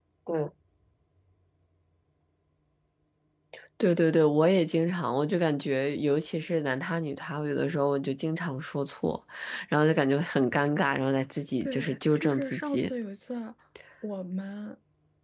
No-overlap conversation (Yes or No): No